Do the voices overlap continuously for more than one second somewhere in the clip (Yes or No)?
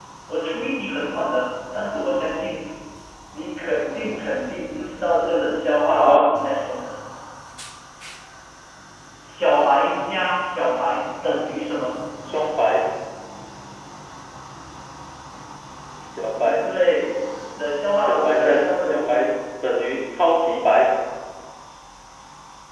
Yes